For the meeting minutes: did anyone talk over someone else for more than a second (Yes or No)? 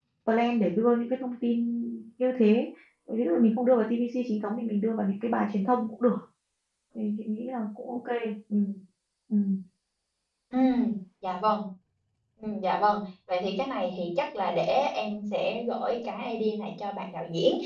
No